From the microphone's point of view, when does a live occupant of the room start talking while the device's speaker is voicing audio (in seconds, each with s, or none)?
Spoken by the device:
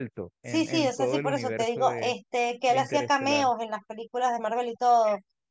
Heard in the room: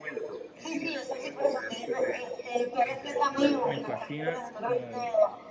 3.6 s